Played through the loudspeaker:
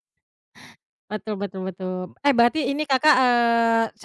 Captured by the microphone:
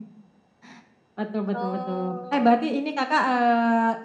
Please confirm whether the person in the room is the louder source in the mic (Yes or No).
No